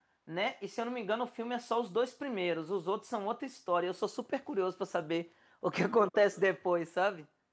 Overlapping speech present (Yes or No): No